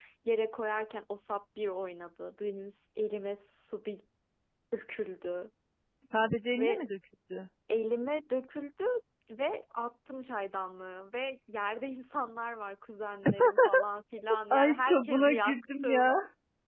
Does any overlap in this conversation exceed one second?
Yes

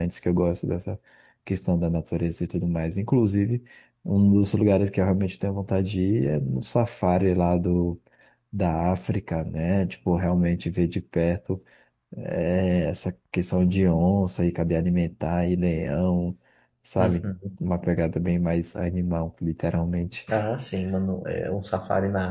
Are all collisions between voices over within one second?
Yes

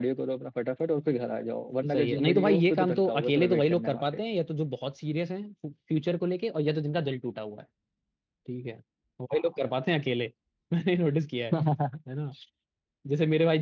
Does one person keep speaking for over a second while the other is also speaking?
Yes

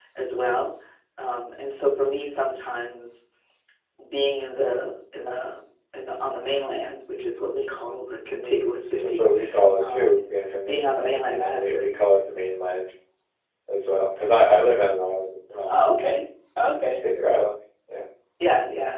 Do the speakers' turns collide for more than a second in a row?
Yes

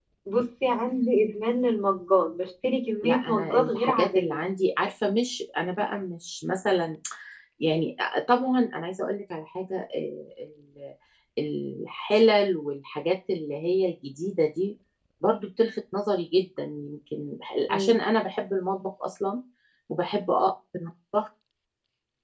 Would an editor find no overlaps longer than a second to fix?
No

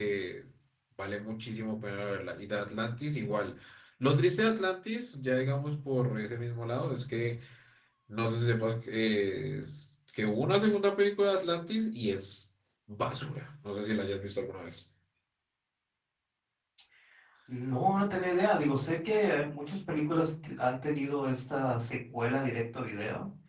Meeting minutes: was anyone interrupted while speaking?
No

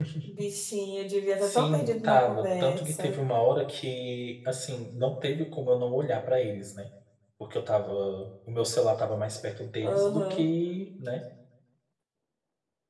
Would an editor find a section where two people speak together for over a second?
Yes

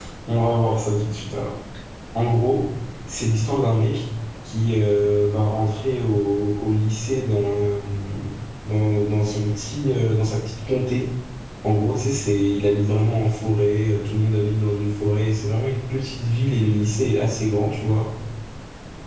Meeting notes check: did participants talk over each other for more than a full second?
No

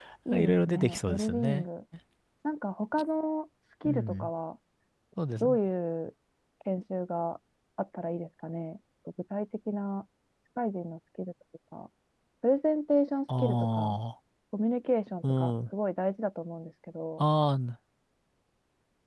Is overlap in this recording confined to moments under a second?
No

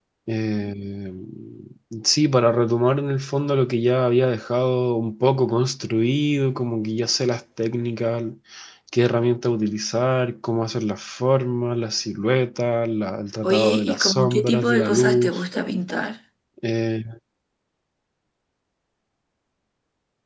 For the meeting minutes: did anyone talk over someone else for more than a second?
Yes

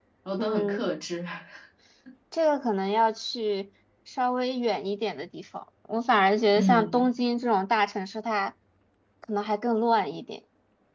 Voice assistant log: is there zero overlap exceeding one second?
Yes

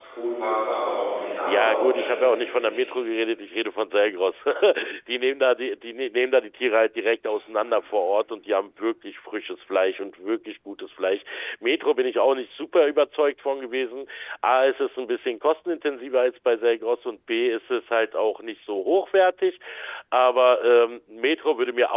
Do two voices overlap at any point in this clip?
Yes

